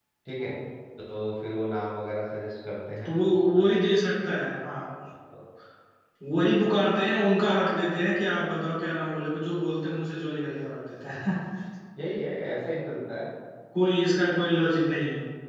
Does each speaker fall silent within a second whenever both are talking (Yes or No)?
Yes